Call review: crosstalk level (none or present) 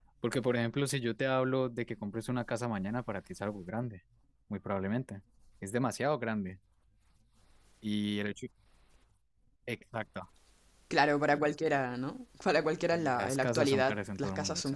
present